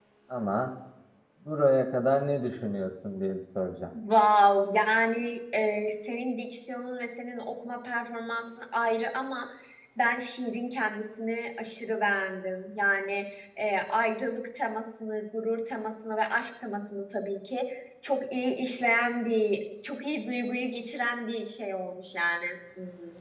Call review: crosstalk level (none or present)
none